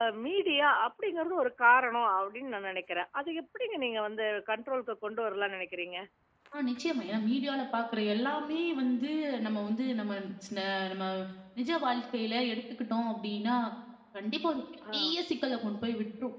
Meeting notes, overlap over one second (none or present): none